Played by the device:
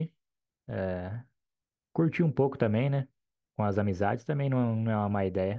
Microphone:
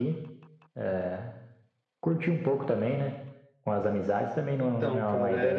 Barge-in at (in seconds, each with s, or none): 4.6 s